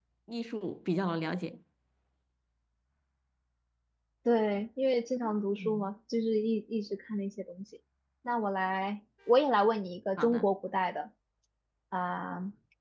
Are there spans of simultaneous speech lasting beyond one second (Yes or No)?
No